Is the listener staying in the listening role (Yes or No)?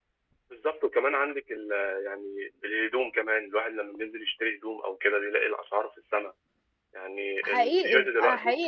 No